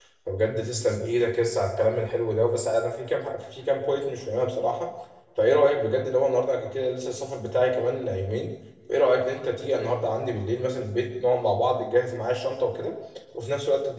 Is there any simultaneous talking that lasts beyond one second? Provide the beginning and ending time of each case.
none

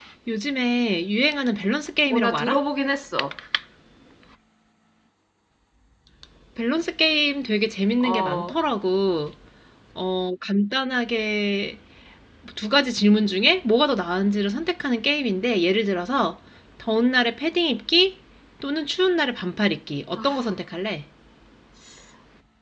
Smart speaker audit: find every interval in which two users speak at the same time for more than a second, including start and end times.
none

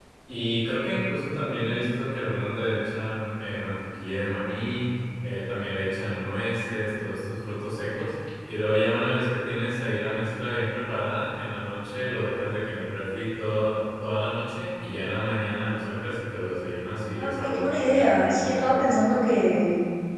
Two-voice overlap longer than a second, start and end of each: 17.2-19.0

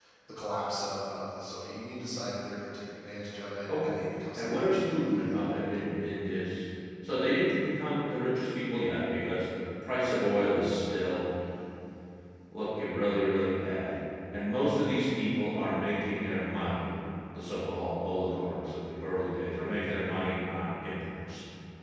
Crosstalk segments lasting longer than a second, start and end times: 4.3-5.8

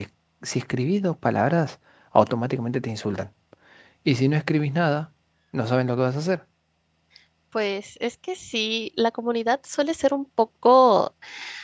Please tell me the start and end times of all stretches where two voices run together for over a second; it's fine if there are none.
none

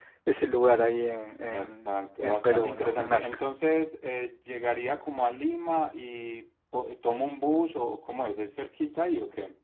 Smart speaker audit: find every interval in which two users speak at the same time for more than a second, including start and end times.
1.5-3.3

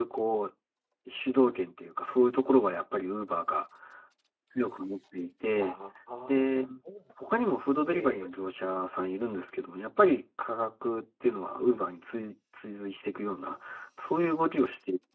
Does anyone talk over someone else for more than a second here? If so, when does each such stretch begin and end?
none

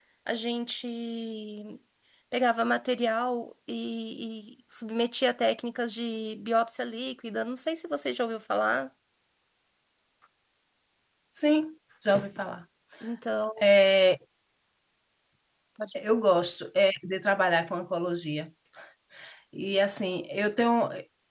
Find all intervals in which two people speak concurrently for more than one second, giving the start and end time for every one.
none

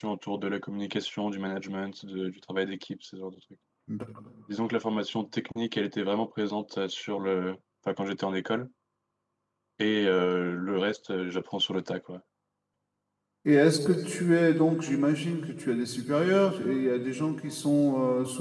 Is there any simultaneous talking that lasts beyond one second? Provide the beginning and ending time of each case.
none

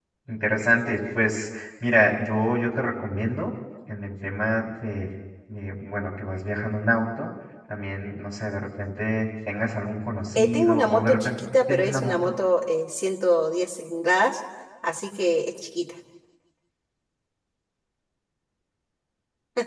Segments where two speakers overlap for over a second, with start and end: 10.4-12.3

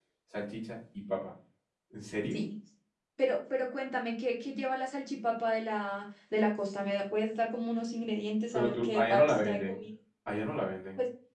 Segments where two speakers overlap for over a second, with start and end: 8.5-9.8

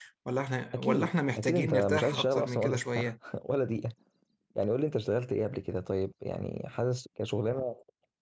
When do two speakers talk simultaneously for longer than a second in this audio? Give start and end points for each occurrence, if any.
0.7-3.1

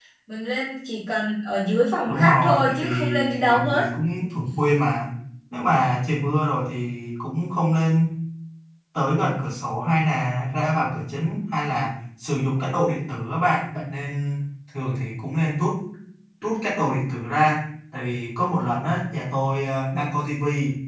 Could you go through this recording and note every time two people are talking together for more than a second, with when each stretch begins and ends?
2.1-3.8

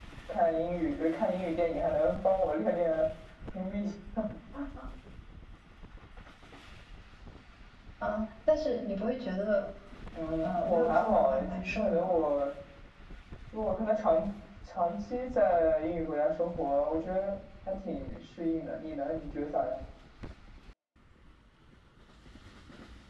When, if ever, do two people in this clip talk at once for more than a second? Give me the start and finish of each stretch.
10.4-12.2

